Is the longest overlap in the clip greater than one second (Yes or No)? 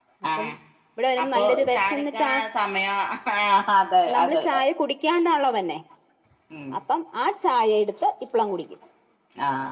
Yes